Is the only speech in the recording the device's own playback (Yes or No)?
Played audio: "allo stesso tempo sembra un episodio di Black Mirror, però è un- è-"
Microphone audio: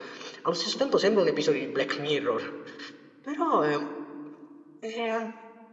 Yes